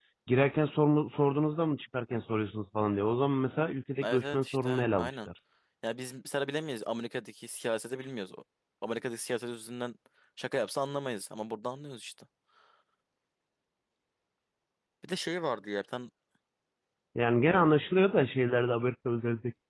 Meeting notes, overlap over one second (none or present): present